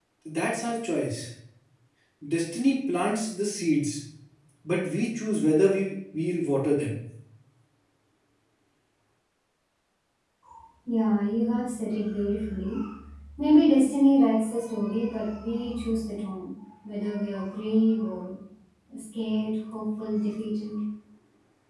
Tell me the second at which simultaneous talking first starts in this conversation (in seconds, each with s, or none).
none